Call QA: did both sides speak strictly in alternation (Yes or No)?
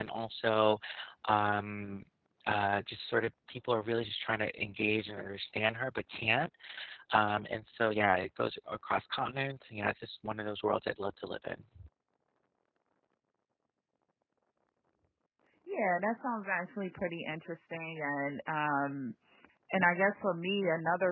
Yes